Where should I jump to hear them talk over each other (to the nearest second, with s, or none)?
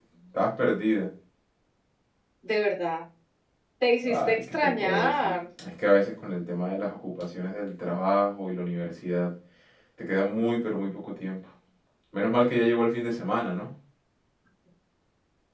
4 s